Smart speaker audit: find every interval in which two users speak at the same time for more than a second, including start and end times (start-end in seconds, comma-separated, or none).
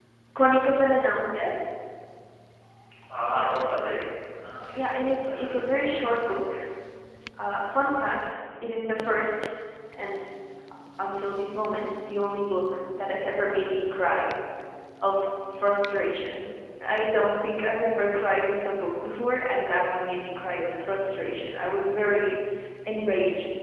4.8-6.0